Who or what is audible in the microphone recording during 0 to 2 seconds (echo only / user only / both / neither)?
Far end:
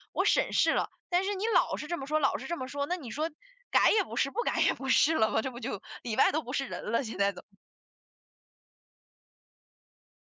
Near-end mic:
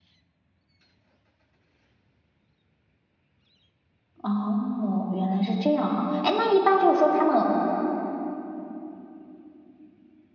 neither